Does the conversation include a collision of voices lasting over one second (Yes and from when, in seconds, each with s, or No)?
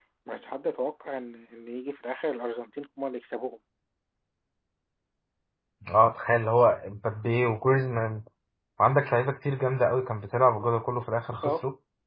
No